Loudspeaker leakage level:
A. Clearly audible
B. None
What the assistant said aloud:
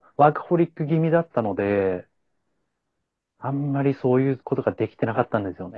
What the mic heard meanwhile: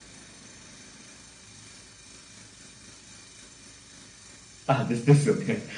B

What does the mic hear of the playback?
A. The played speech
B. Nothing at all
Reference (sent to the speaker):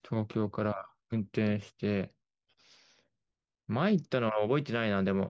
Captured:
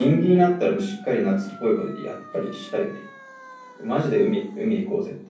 B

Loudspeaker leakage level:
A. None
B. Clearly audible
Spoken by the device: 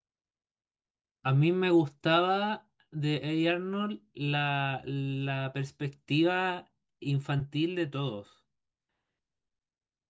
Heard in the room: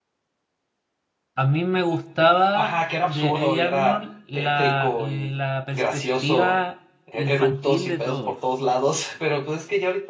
B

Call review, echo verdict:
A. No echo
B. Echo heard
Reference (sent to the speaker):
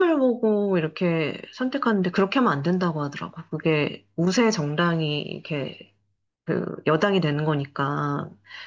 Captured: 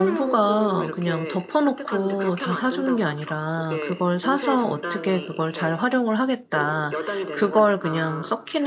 B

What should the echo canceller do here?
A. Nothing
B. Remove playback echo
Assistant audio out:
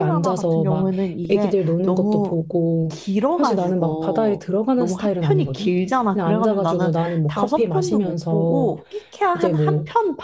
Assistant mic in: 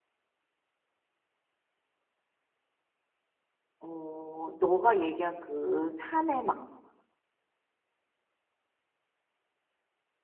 A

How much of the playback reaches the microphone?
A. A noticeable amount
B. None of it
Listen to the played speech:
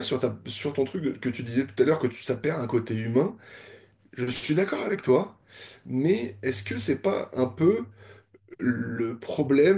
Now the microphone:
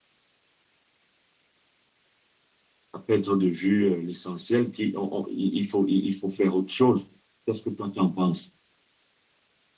B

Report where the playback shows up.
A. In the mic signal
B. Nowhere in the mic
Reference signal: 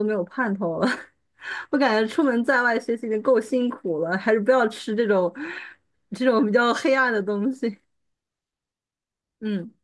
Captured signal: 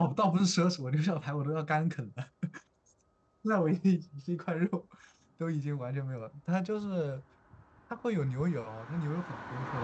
B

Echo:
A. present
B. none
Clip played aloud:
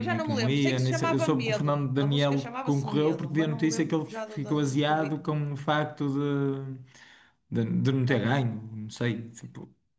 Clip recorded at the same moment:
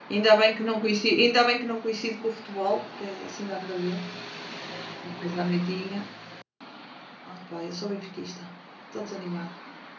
B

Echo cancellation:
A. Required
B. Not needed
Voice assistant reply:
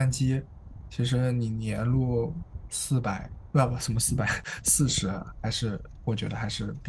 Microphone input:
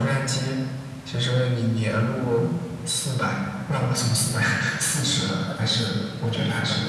A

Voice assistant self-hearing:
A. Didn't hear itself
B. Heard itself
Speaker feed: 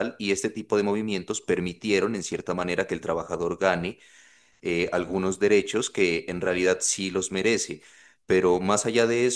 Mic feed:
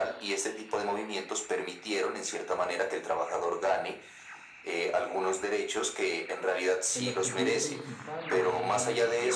B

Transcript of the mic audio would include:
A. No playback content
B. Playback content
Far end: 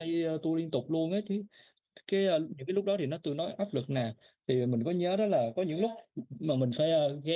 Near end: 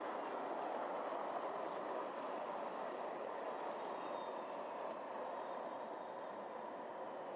A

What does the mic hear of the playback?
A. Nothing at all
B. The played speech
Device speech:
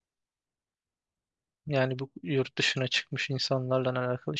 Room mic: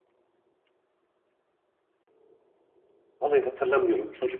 A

